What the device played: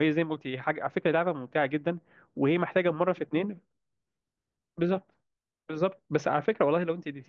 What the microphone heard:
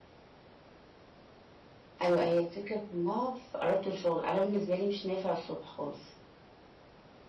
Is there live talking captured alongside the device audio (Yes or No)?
Yes